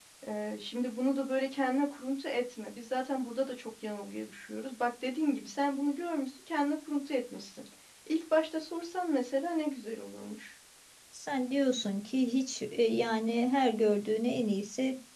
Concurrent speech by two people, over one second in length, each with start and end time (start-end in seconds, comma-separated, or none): none